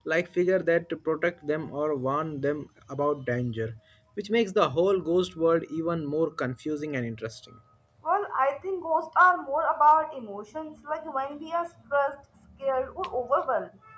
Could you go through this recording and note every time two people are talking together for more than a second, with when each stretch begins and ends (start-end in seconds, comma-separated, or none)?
none